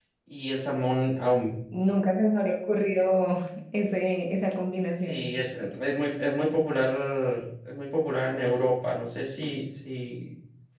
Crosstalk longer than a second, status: none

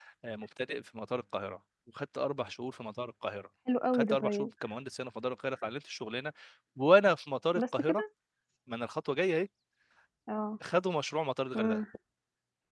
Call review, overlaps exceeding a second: none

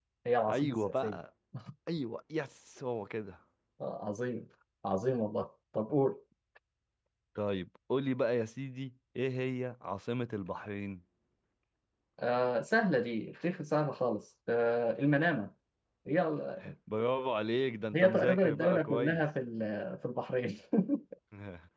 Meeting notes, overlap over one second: present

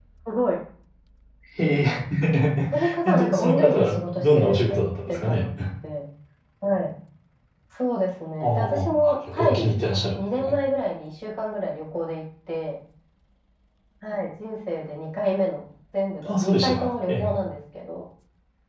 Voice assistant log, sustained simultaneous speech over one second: present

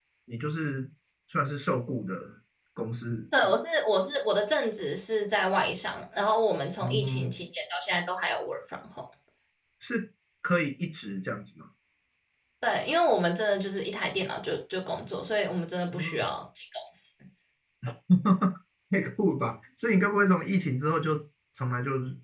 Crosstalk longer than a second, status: none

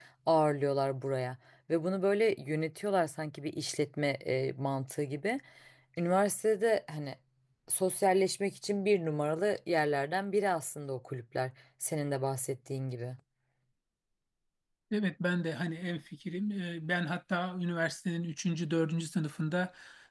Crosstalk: none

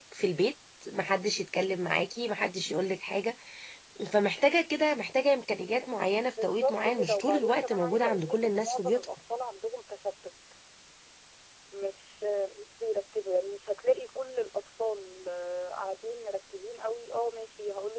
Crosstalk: present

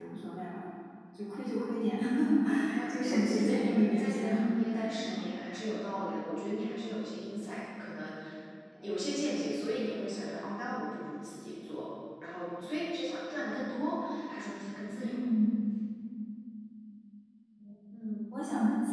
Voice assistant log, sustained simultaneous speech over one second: present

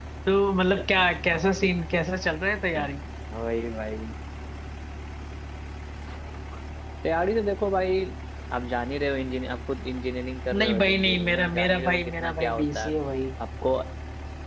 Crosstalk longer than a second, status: present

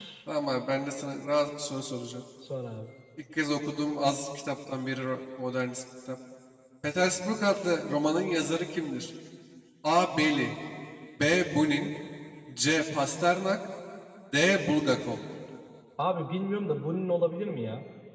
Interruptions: none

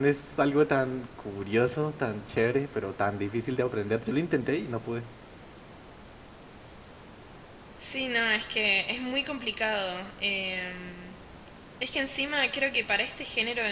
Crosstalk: none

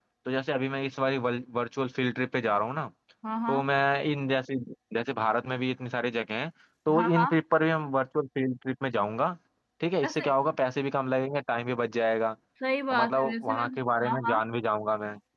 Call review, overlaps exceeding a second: present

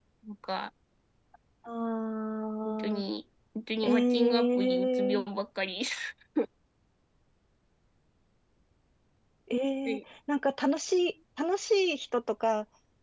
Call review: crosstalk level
present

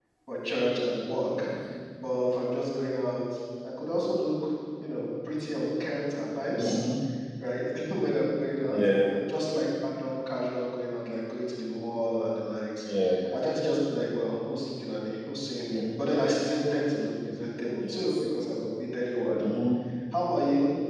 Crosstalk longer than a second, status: none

